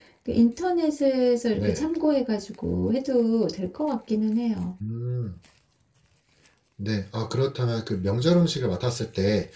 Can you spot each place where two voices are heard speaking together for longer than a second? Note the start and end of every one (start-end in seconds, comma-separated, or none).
none